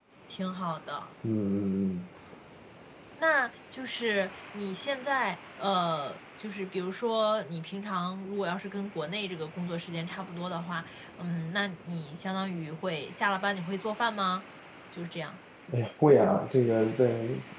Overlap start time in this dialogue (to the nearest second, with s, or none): none